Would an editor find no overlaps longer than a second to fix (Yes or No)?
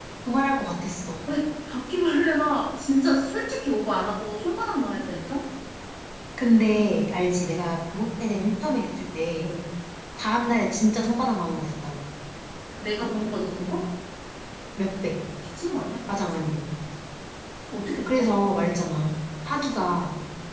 Yes